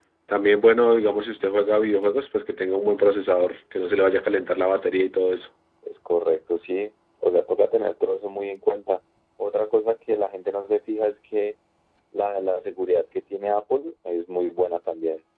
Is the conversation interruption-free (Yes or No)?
Yes